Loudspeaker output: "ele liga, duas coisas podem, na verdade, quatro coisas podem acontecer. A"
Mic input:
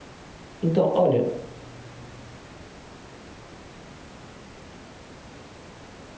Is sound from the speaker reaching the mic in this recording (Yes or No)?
No